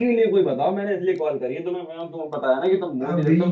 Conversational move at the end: taking over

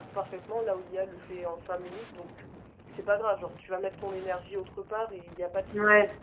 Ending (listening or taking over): listening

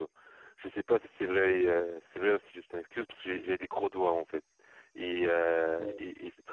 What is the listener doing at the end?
listening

